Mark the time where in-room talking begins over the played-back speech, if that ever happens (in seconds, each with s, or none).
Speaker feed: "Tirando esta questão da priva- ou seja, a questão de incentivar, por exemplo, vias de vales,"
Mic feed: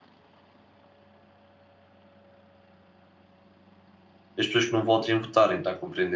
4.4 s